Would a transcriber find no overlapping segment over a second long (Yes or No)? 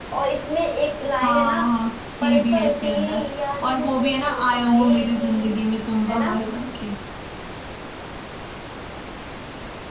No